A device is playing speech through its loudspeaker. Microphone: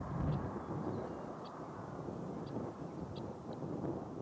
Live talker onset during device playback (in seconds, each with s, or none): none